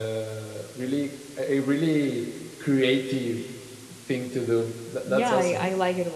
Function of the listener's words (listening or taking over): taking over